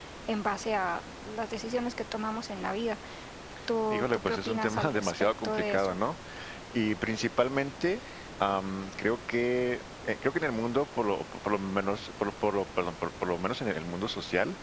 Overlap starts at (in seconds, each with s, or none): 3.9 s